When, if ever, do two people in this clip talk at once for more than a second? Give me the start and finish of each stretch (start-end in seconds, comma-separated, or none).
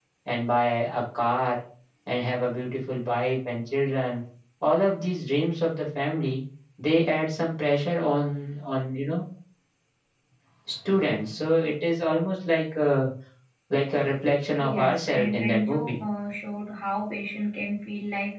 14.6-16.0